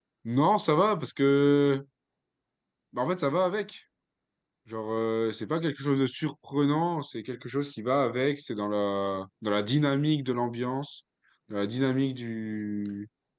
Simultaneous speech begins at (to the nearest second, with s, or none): none